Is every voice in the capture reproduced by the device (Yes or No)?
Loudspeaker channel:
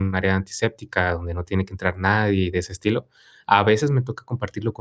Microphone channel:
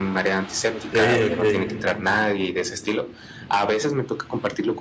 No